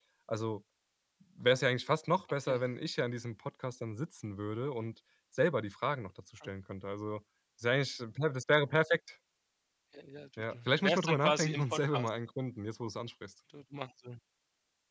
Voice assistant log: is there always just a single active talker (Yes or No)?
No